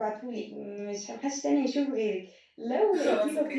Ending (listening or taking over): listening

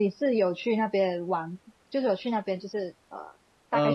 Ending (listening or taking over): taking over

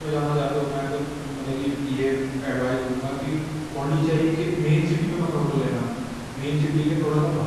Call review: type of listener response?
listening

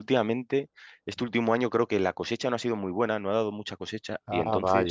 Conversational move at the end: listening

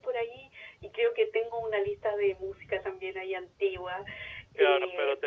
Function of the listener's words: taking over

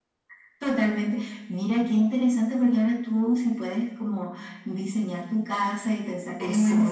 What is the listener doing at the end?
taking over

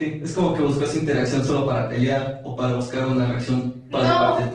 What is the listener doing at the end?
taking over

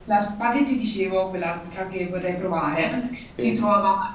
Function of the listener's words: listening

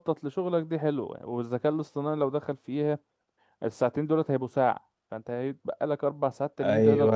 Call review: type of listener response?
taking over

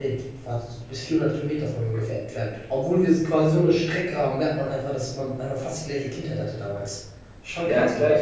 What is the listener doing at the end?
taking over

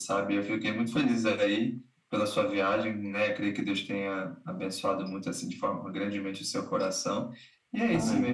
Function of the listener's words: listening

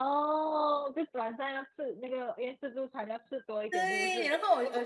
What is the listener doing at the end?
taking over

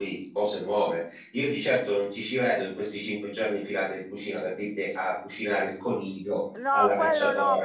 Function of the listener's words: taking over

